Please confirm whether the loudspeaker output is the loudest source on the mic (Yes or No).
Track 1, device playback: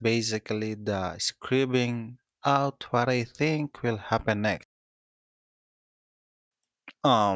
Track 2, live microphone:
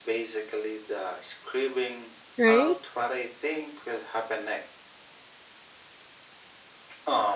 No